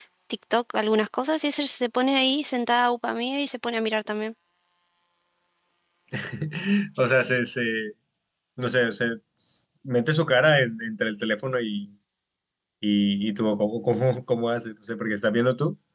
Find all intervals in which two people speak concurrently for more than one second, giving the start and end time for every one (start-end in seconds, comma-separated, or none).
none